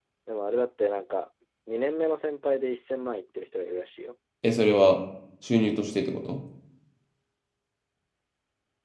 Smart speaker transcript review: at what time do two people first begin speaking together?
none

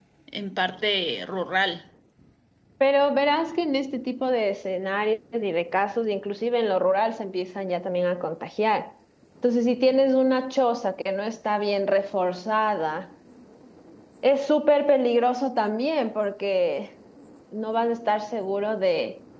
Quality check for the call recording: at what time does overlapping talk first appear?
none

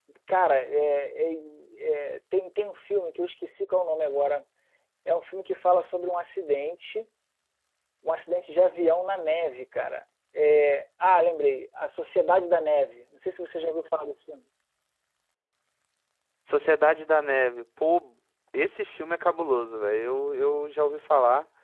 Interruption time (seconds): none

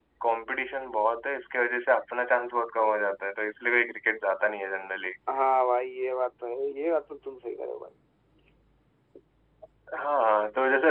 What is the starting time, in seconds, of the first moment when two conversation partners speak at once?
none

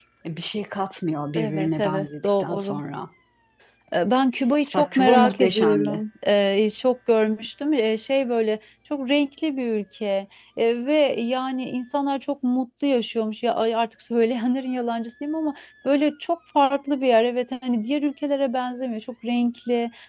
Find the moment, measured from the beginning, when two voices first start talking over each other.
1 s

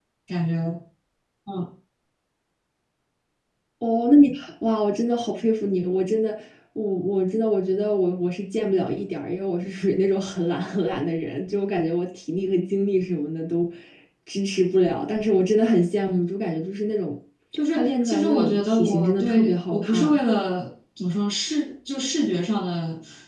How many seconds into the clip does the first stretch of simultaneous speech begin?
18 s

